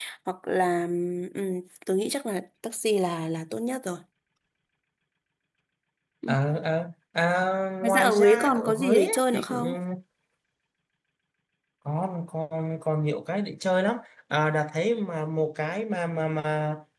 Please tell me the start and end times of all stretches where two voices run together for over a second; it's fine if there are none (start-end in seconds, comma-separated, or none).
7.8-9.6